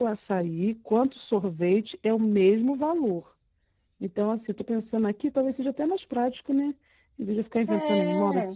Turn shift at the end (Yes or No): No